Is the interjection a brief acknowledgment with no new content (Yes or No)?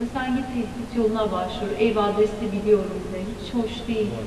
No